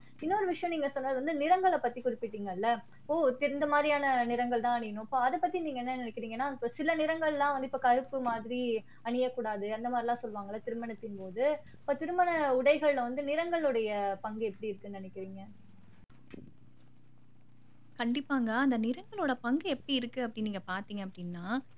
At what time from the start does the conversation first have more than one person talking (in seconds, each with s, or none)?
none